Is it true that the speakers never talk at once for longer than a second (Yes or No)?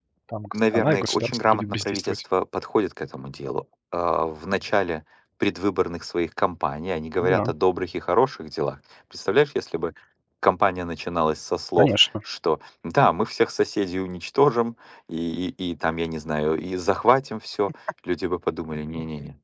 No